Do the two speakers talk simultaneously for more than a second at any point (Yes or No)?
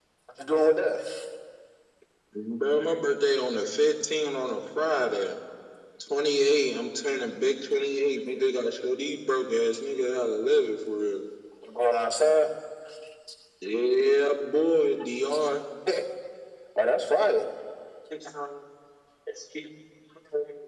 No